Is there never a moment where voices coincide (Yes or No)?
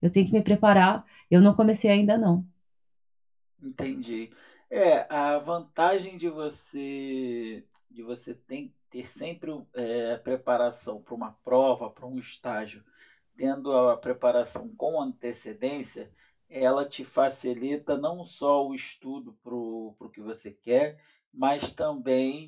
Yes